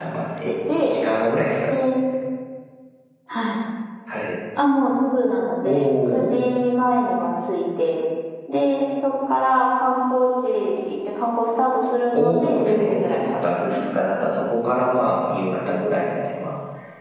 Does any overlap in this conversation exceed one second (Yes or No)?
Yes